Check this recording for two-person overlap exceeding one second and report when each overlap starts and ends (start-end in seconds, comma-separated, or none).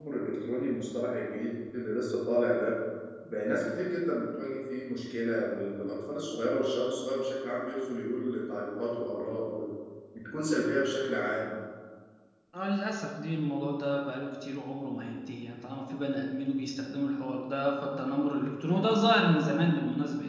none